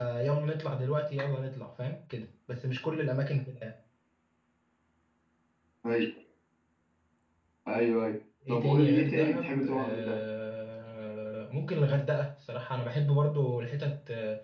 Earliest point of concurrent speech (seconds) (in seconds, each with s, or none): 8.5 s